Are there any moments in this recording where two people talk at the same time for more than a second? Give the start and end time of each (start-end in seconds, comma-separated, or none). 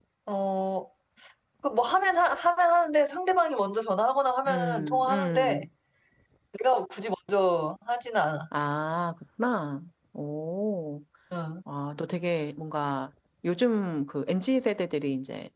4.5-5.7